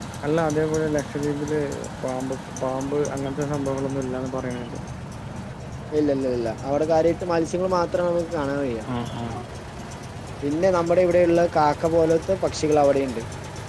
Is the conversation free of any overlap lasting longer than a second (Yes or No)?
Yes